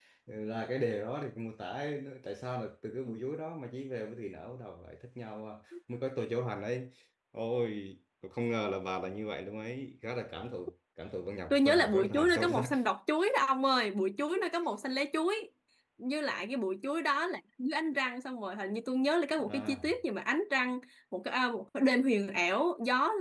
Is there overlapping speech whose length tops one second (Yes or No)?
Yes